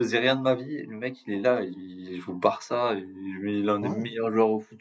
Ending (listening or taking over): listening